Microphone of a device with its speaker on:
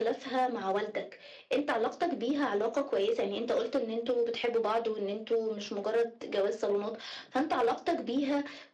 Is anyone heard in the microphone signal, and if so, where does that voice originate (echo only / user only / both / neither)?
echo only